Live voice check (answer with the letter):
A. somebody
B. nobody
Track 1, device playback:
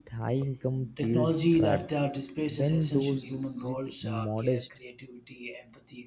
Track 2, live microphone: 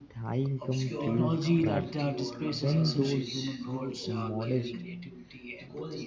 A